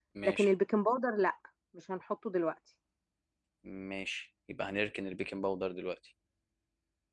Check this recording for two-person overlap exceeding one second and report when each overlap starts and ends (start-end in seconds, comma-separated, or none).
none